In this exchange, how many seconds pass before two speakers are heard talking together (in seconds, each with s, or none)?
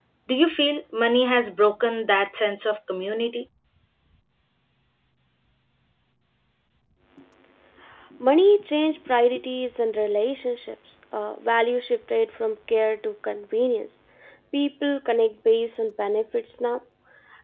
none